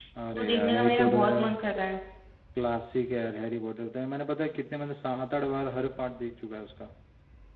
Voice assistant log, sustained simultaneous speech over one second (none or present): present